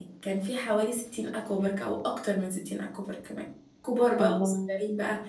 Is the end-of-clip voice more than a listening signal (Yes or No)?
No